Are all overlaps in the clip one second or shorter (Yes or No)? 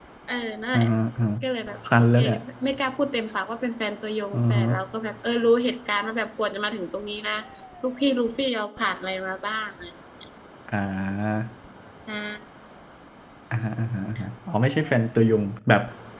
Yes